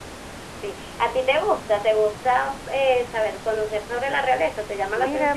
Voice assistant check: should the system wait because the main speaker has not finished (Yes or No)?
No